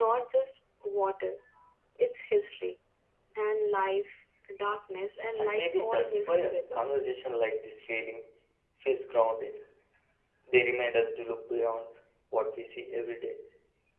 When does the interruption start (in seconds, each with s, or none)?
5.3 s